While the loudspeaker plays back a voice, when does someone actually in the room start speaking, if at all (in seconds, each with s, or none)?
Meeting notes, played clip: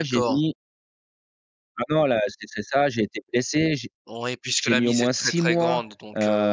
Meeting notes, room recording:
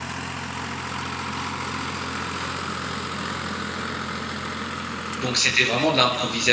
5.2 s